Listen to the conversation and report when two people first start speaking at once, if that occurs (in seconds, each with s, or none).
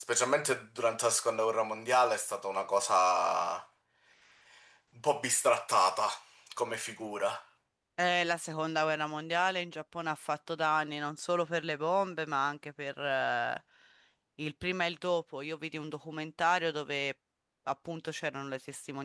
none